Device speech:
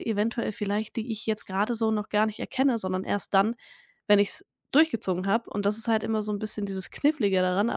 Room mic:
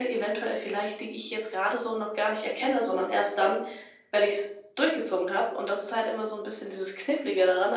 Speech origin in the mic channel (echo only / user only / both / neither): echo only